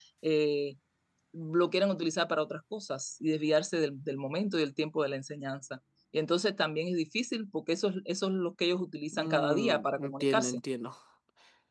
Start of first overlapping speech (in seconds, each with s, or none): 9.1 s